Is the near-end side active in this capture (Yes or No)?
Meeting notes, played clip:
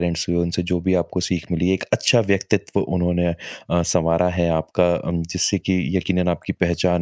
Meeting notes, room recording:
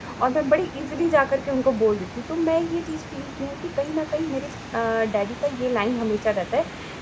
Yes